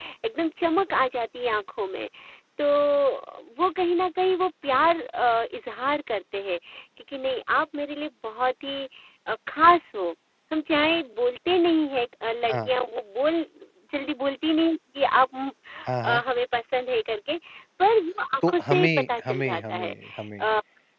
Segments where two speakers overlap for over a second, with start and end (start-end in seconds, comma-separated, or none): 18.5-19.9